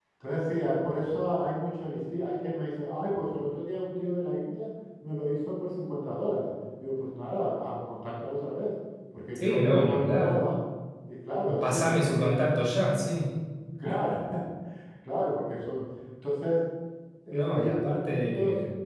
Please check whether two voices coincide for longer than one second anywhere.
Yes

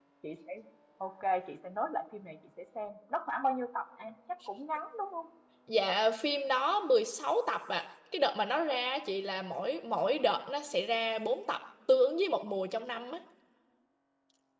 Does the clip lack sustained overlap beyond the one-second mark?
Yes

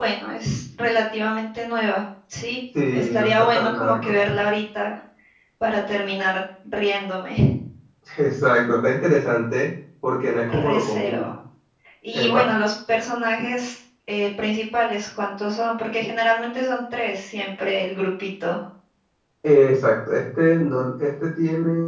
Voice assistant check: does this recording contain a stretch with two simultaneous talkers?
Yes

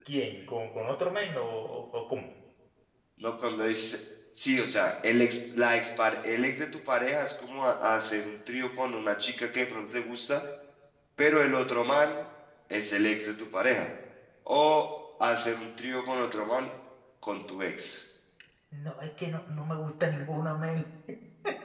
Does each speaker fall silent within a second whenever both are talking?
Yes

